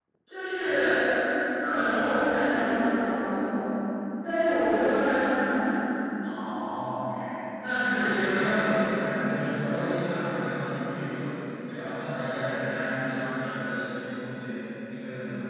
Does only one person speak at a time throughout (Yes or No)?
Yes